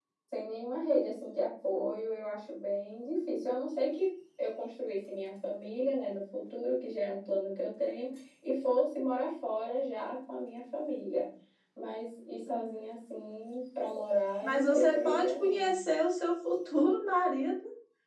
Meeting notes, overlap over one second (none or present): present